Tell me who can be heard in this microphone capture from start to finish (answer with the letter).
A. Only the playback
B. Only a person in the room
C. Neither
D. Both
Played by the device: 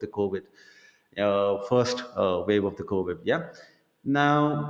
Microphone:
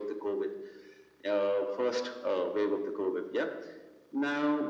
A